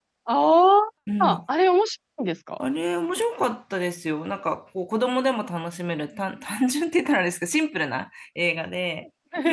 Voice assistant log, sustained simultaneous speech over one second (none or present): none